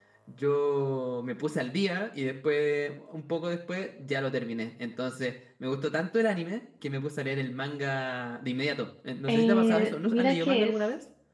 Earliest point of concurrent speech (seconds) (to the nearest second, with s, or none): 9 s